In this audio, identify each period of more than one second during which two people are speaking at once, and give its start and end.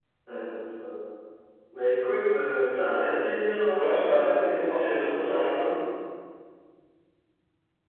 3.7-5.7

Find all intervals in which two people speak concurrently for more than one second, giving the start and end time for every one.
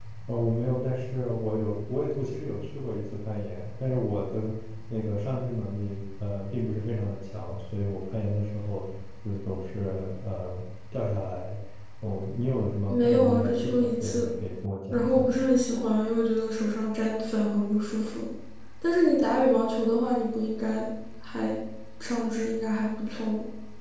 12.9-14.3

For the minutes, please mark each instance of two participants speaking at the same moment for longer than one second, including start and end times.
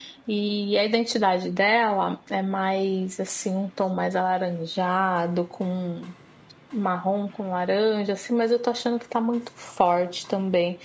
none

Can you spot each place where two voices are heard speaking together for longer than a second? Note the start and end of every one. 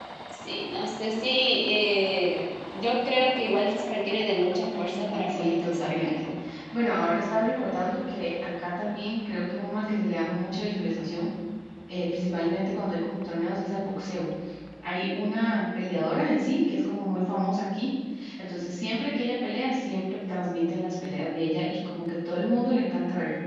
4.8-6.3

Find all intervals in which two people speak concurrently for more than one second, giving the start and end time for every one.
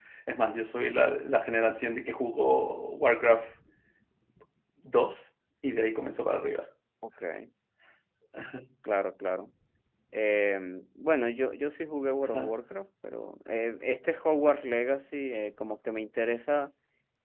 none

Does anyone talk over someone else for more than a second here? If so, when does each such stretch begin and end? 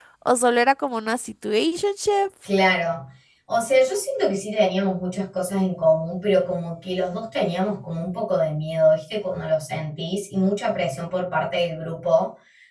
none

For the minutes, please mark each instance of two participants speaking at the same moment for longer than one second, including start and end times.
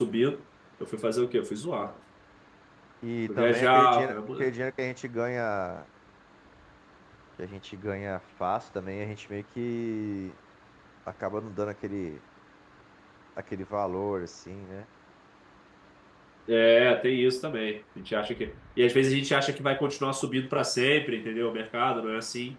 3.3-4.5

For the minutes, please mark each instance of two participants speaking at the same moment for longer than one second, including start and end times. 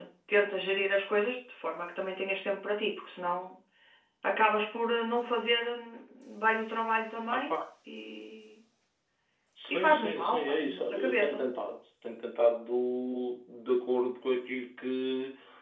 9.7-11.4

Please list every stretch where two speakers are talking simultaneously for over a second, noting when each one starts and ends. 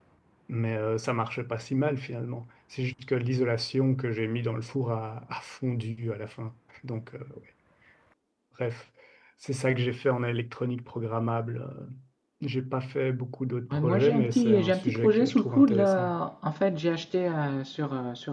13.7-16.1

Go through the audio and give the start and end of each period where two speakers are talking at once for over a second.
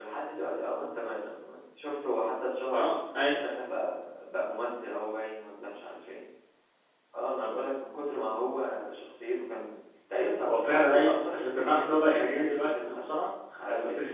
10.5-13.0

